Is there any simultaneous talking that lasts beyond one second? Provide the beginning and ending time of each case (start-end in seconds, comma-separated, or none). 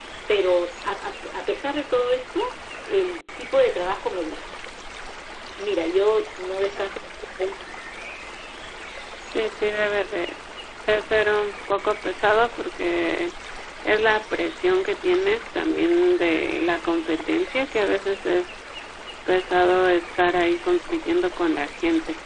none